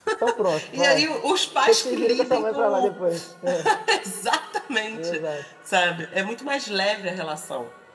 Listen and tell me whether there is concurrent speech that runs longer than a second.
Yes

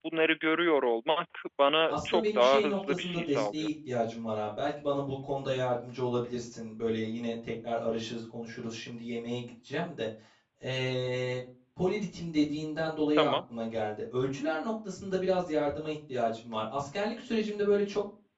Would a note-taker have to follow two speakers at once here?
Yes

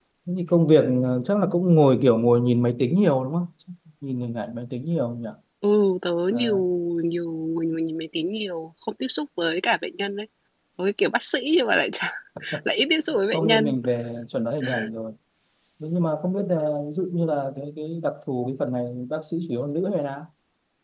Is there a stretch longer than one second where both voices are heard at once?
No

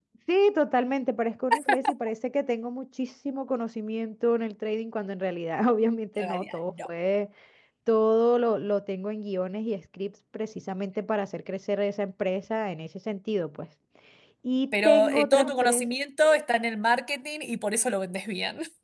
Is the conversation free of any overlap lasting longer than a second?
No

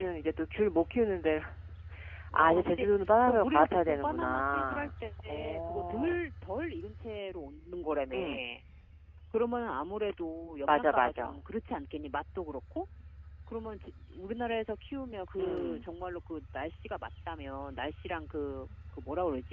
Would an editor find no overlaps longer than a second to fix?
No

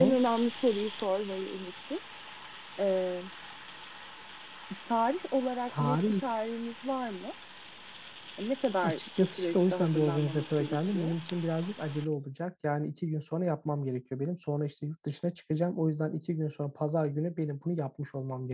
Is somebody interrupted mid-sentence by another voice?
Yes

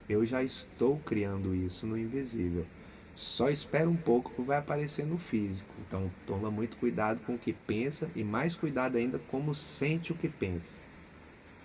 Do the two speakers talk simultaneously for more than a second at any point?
No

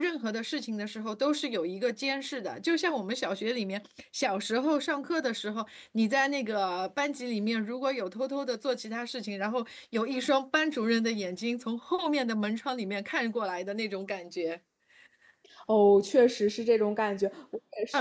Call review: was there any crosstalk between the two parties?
No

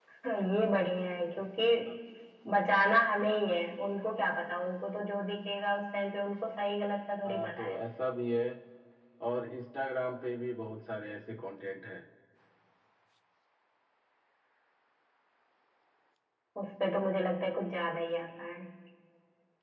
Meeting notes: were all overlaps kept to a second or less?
Yes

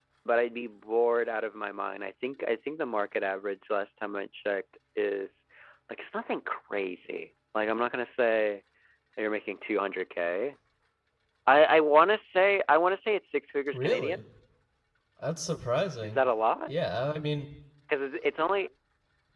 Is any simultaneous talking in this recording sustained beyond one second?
No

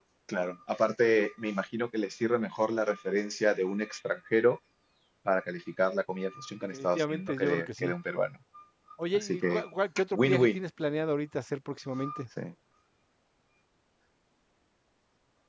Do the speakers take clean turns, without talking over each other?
No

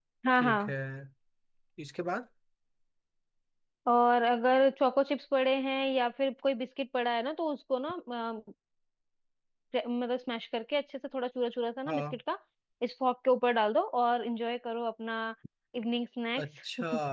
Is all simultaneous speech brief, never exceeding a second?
Yes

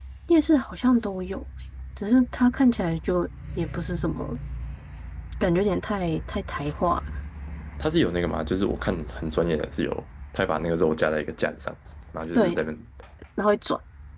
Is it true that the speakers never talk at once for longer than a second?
Yes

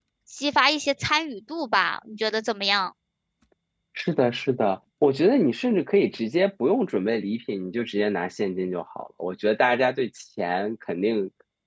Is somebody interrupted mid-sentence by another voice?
No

